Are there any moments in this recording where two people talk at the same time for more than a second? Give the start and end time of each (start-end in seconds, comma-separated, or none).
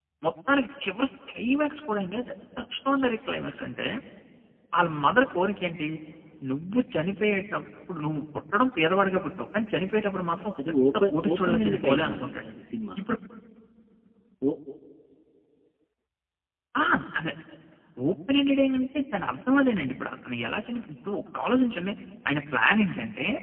10.6-12.4